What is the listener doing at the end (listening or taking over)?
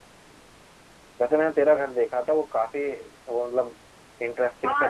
taking over